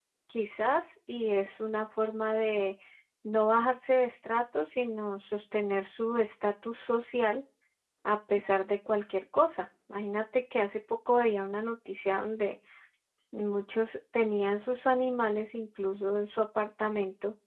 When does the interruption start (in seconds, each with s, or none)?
none